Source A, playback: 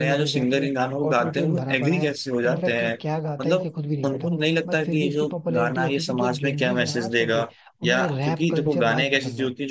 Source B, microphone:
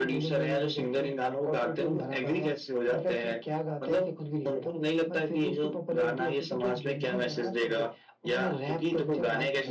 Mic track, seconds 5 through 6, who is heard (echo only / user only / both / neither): echo only